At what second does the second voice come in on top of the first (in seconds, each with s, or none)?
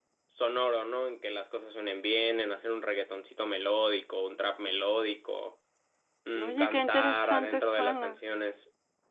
6.4 s